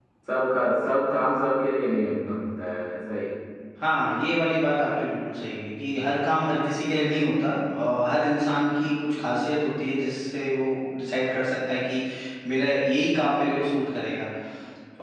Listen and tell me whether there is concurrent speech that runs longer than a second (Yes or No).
No